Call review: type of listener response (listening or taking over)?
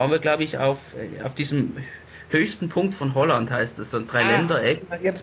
taking over